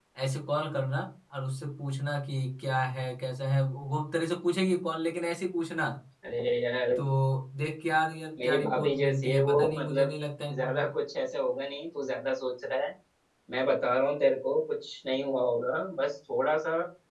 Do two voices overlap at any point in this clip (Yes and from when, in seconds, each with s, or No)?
Yes, from 8.4 s